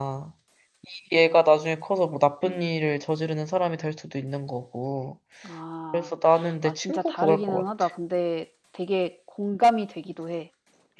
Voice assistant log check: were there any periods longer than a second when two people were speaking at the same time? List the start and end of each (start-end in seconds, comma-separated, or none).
6.6-7.9